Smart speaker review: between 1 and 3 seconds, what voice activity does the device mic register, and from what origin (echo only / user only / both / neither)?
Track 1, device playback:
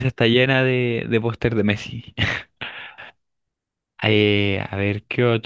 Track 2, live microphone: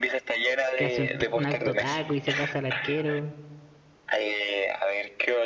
both